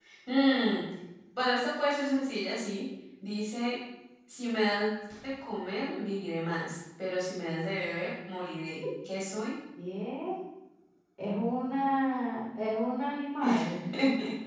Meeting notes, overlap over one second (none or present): none